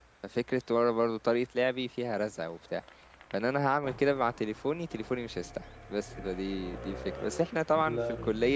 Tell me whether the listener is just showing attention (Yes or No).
Yes